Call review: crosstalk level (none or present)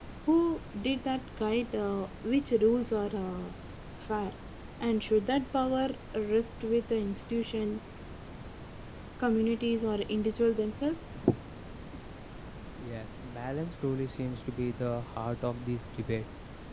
none